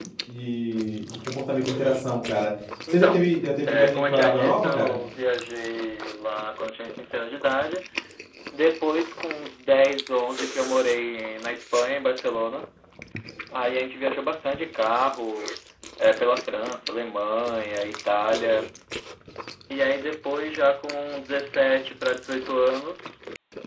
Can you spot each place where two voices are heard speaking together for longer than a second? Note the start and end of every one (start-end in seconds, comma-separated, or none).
3.7-5.0